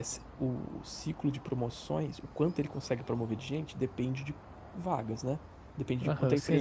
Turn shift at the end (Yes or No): Yes